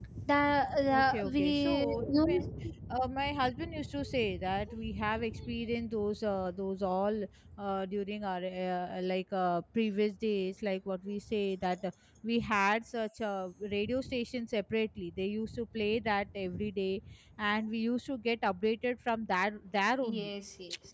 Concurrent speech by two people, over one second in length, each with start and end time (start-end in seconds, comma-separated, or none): 0.9-2.4